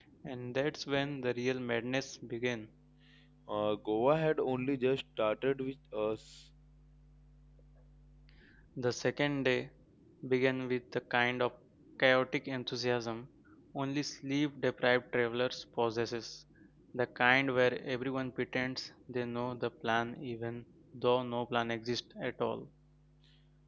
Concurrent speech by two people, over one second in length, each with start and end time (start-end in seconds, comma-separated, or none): none